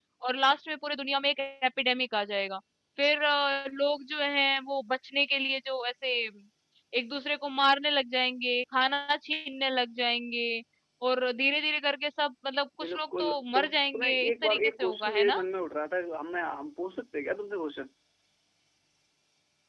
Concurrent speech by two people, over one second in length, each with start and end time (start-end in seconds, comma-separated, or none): 12.8-15.3